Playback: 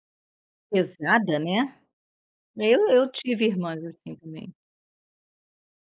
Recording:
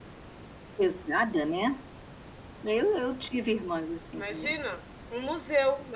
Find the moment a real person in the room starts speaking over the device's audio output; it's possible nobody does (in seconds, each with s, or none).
4.2 s